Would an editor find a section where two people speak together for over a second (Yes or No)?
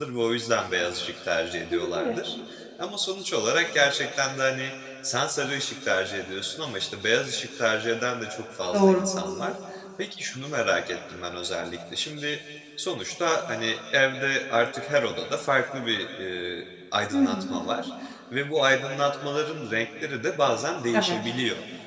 No